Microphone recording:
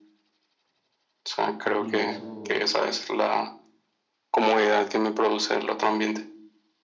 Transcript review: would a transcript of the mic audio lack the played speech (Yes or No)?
No